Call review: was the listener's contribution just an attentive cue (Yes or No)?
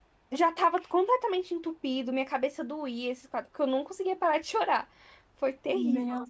No